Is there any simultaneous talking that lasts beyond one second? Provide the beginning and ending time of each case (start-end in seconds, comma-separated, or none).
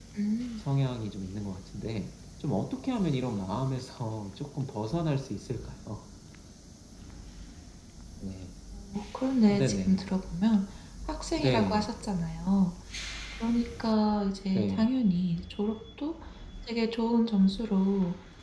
none